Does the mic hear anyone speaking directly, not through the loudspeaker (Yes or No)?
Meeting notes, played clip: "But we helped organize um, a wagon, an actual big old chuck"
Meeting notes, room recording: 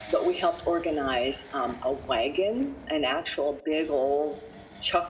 No